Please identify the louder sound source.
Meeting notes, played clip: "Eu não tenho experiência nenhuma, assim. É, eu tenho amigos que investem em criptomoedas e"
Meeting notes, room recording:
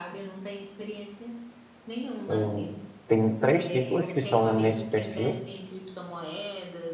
user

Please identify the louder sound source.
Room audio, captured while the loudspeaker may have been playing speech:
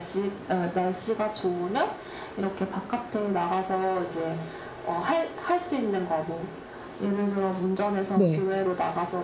user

